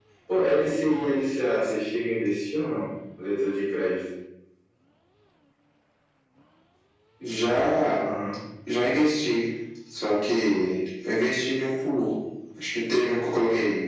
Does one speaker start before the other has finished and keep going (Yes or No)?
No